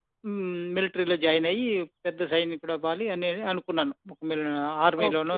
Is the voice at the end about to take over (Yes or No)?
Yes